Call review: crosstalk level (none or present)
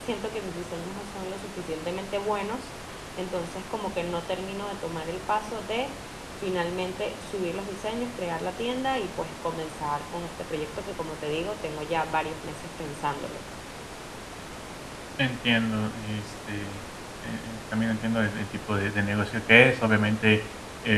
none